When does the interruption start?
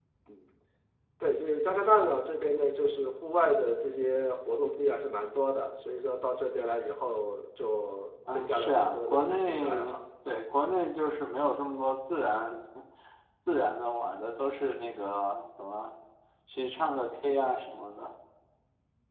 8 s

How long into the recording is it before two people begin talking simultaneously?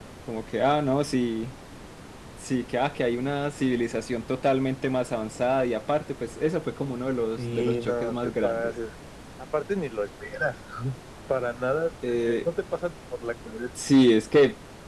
7 s

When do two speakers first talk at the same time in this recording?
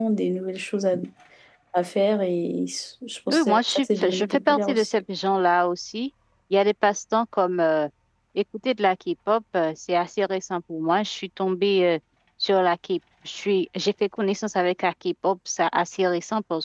3 s

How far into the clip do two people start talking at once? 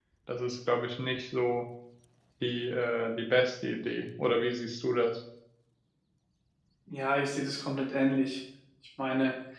none

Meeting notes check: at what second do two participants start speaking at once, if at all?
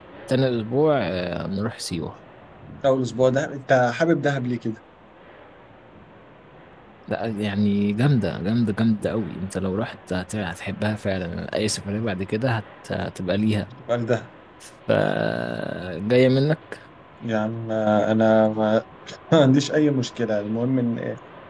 none

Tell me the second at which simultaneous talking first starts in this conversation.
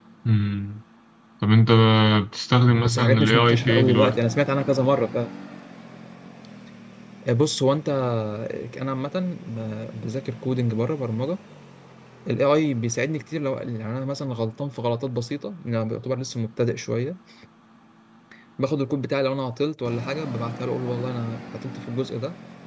3 s

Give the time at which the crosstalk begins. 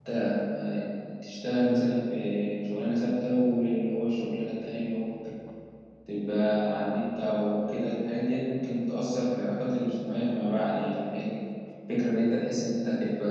none

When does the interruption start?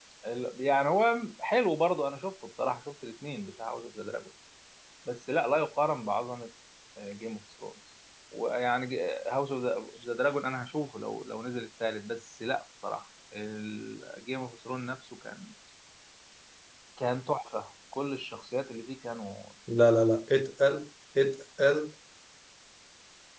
none

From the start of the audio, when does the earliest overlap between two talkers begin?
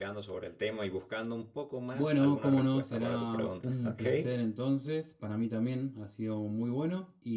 2 s

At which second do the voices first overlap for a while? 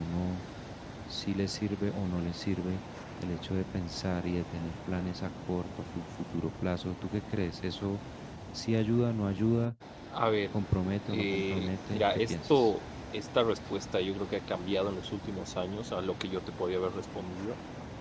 11 s

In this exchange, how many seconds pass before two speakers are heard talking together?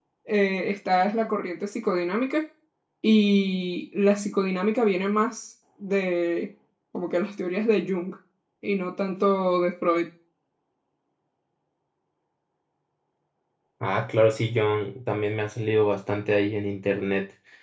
none

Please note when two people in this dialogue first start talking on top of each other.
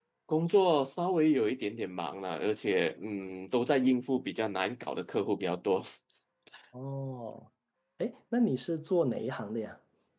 none

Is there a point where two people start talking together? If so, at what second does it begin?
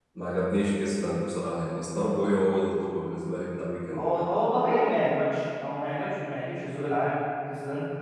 none

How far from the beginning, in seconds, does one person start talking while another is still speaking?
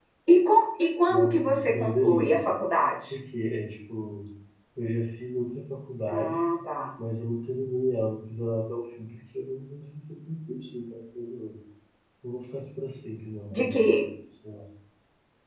1 s

